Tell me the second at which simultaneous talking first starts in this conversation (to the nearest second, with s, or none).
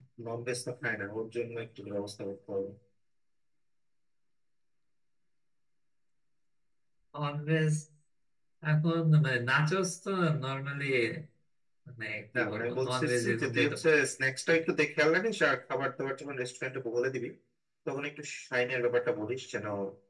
12 s